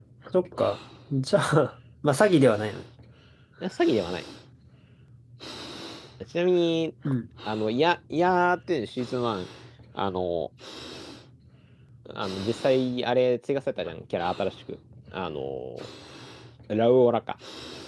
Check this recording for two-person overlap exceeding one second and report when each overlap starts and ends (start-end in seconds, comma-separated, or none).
none